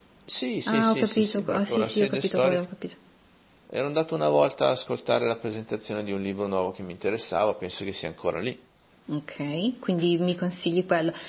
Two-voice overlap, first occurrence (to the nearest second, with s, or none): 1 s